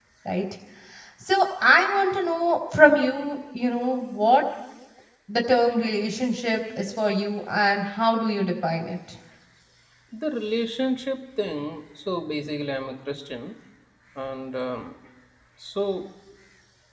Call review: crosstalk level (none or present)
none